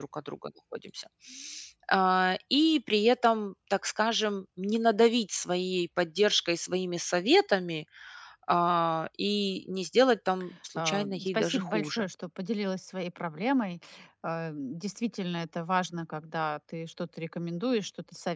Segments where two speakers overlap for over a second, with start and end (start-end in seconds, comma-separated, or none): 10.8-12.0